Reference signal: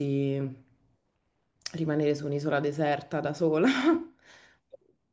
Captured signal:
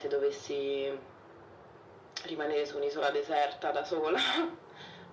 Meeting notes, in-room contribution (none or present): none